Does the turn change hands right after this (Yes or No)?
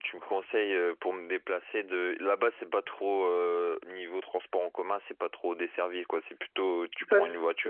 Yes